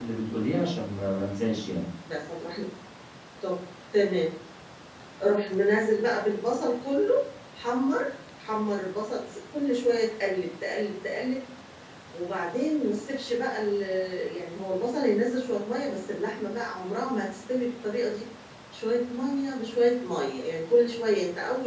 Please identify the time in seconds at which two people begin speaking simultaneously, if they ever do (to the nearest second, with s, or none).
none